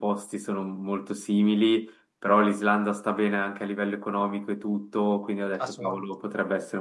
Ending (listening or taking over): listening